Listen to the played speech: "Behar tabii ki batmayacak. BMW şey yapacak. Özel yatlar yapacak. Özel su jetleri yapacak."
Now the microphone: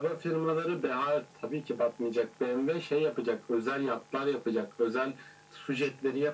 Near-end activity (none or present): none